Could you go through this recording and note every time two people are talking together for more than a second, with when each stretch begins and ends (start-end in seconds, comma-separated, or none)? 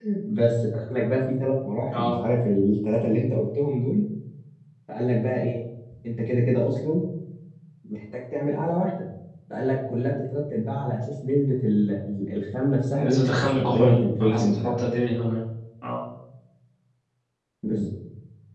12.9-14.8